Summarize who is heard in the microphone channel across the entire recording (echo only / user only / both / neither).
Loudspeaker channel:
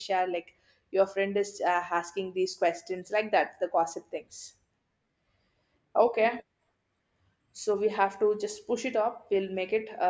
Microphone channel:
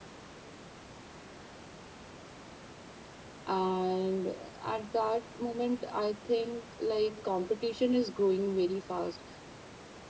user only